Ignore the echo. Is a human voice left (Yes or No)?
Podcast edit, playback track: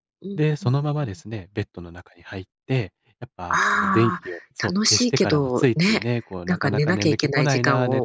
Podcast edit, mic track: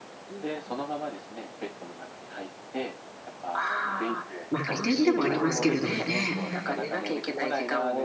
Yes